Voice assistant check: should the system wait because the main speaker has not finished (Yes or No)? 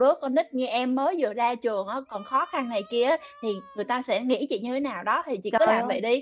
No